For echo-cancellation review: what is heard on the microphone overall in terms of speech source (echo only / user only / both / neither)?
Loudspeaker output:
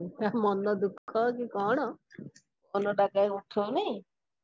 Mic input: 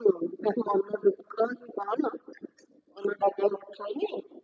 echo only